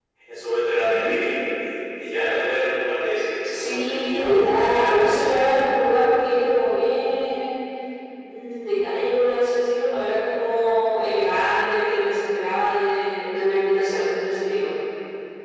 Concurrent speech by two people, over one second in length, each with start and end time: 3.5-5.2

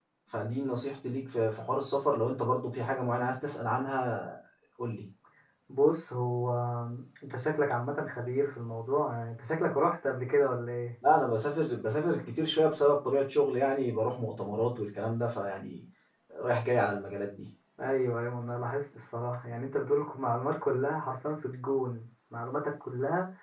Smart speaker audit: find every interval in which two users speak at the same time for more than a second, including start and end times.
none

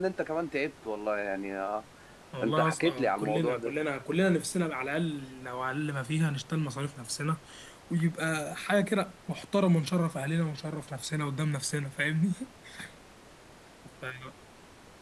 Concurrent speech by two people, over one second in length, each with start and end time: 2.4-3.7

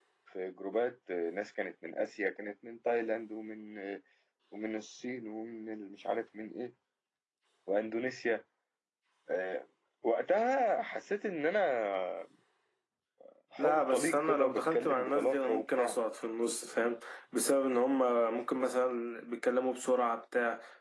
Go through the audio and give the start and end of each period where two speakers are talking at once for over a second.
13.6-15.9

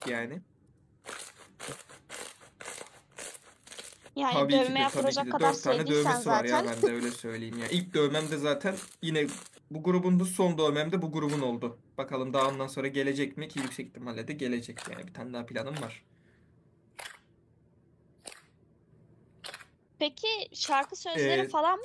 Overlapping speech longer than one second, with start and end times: 4.3-6.7

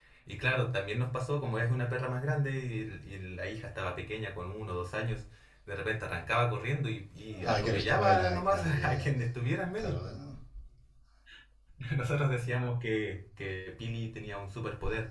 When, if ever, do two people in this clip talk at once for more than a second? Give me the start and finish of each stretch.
7.4-9.1

